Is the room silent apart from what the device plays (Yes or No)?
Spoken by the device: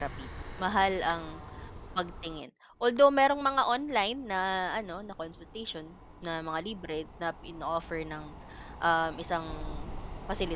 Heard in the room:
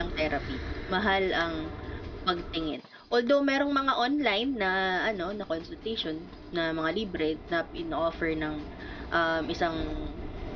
Yes